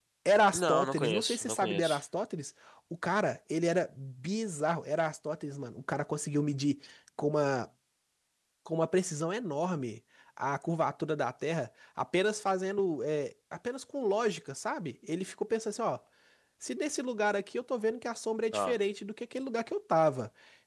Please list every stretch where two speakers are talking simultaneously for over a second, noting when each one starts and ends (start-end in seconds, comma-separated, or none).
0.5-2.0